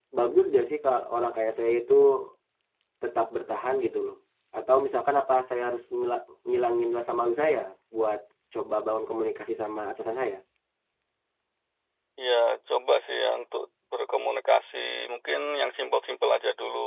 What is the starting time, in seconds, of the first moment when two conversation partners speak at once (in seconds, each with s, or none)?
none